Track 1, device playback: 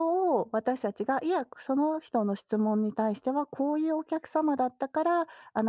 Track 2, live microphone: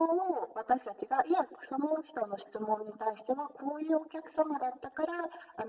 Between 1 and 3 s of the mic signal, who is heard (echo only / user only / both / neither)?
echo only